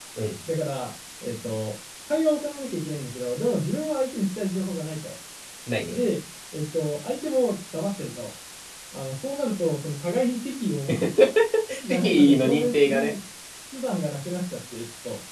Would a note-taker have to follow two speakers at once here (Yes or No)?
Yes